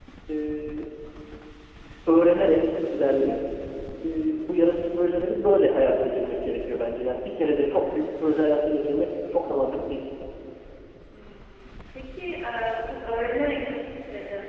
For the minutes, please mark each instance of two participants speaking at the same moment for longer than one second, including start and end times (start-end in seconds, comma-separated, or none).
none